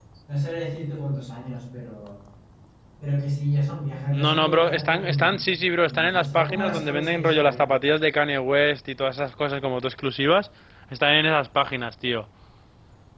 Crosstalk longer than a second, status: present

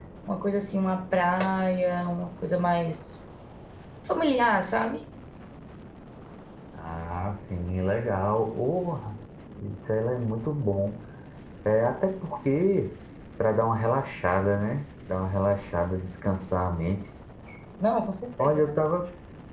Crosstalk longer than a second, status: none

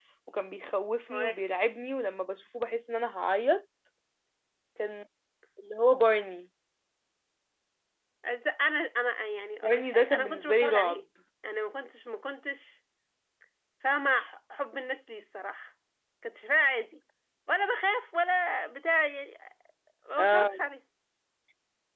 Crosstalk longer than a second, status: present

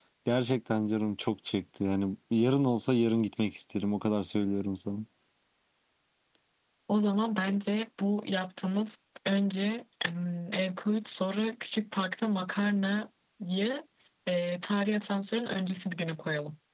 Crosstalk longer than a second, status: none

